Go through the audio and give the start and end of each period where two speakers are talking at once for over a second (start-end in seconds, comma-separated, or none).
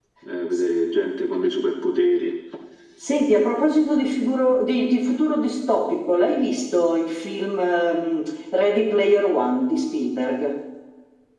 none